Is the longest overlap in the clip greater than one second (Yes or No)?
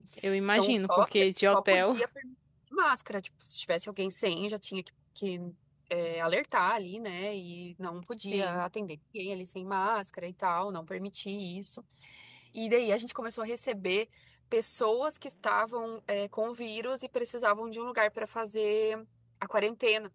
Yes